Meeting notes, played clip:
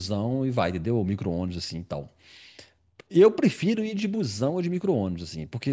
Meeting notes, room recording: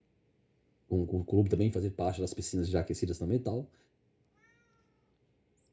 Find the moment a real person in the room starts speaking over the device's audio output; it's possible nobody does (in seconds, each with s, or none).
0.9 s